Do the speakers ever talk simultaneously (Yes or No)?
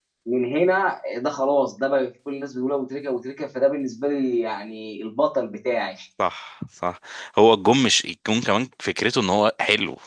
No